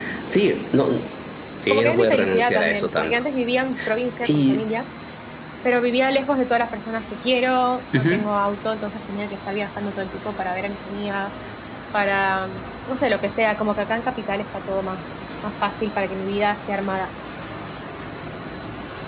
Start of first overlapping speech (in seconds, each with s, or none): 1.7 s